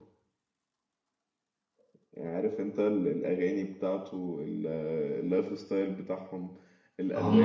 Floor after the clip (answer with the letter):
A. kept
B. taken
B